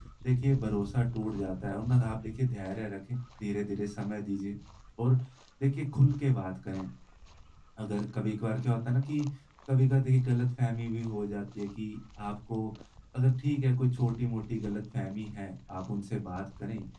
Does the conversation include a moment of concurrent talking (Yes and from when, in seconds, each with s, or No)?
No